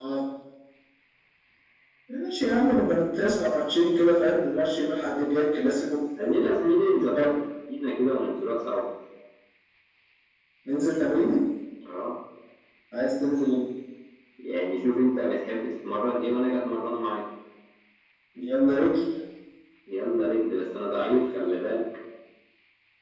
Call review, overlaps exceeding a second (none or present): none